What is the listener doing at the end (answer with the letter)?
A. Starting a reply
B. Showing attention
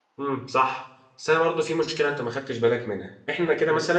B